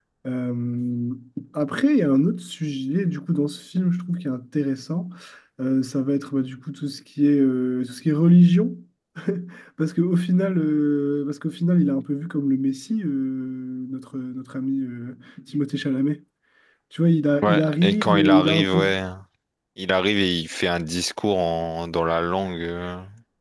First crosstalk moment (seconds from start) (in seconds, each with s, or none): 17.4 s